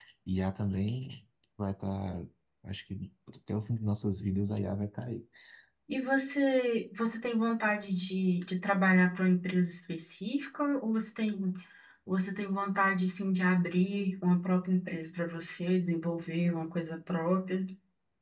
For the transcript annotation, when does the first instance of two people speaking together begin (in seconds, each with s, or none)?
none